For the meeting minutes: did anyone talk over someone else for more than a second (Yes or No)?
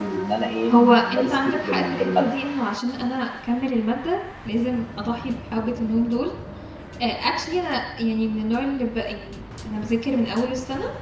Yes